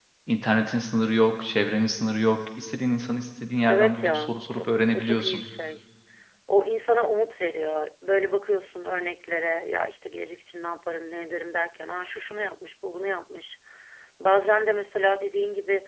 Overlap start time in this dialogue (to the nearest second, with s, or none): 4 s